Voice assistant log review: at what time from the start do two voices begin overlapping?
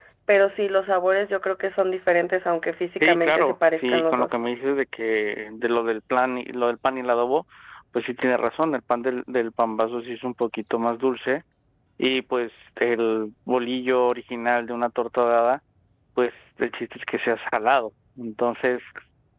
3.0 s

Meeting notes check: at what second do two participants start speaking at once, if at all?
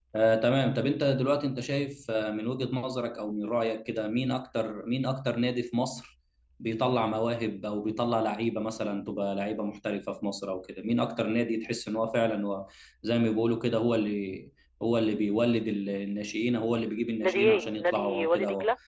17.2 s

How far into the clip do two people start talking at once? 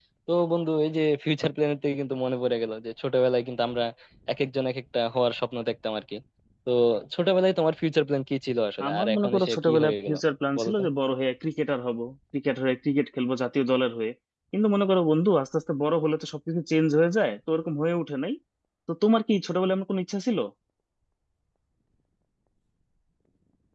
8.9 s

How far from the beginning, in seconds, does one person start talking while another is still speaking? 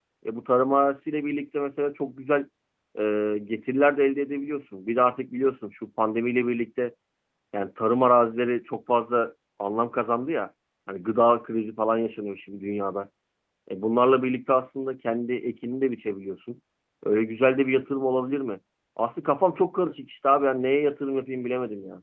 none

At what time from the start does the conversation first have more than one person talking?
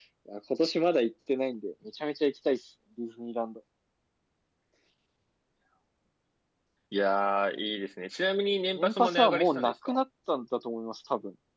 8.8 s

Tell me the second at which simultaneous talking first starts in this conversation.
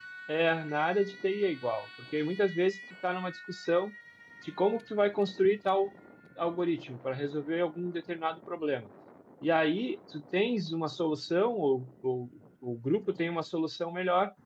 none

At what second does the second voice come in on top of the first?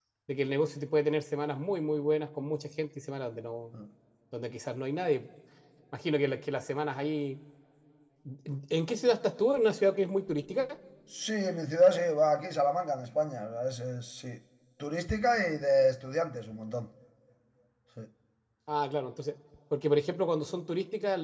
none

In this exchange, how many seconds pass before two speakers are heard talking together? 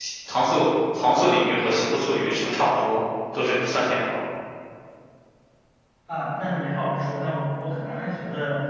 none

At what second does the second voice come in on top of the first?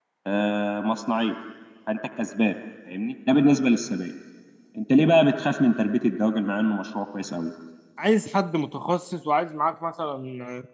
none

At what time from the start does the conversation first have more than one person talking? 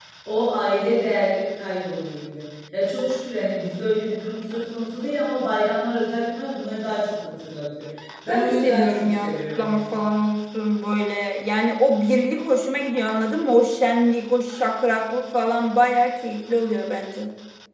8.3 s

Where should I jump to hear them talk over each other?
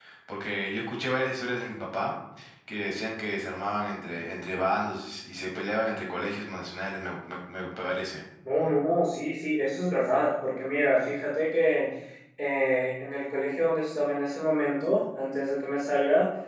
none

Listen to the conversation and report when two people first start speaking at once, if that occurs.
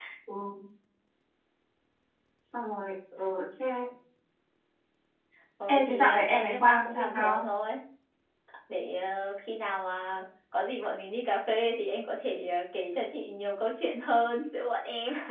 5.7 s

